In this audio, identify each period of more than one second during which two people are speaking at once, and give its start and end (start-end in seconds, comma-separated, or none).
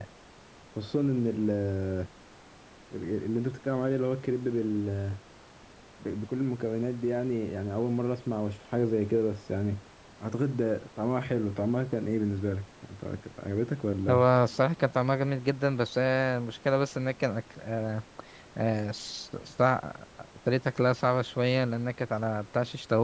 none